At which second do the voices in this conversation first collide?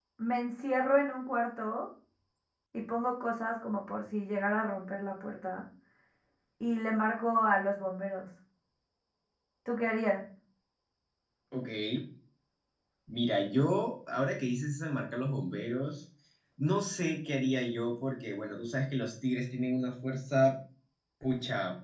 none

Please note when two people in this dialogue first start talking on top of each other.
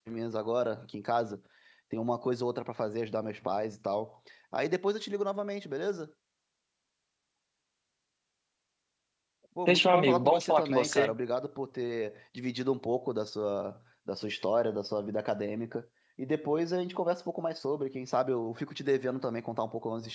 9.7 s

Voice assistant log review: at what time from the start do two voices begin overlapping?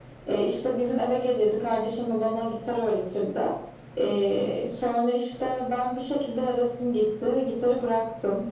none

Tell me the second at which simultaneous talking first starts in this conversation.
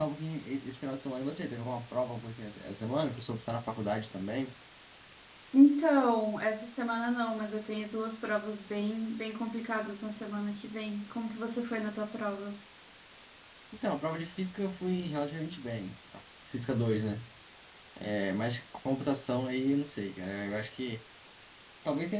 none

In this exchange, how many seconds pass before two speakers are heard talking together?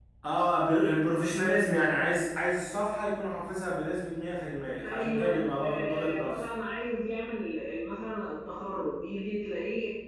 4.8 s

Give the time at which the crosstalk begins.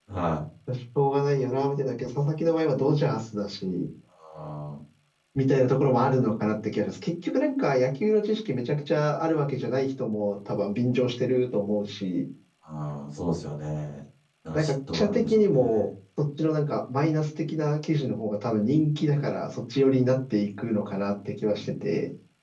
14.5 s

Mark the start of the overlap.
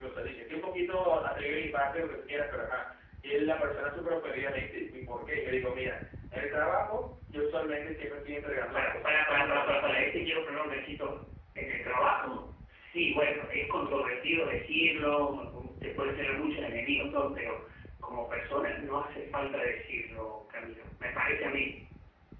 8.7 s

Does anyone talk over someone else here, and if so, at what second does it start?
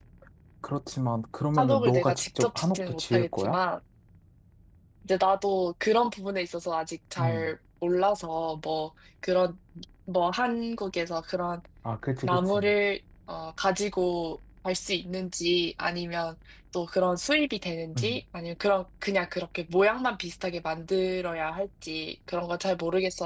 1.6 s

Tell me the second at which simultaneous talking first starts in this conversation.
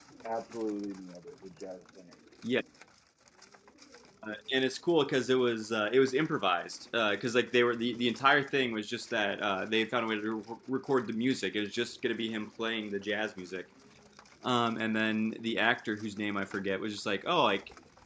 none

